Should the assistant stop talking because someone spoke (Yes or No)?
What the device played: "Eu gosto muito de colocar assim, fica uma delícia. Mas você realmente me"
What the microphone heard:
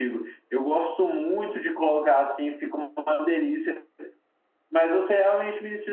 No